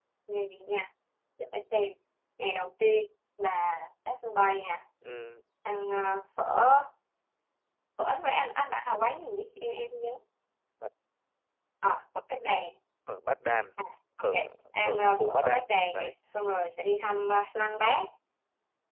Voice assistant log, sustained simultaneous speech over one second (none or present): present